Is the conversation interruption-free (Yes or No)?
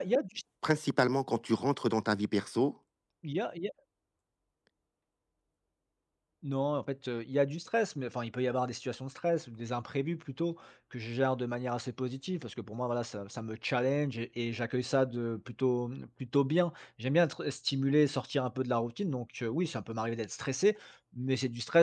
Yes